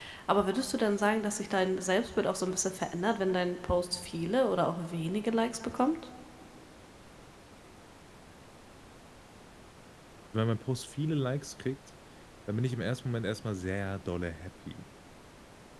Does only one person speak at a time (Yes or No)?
Yes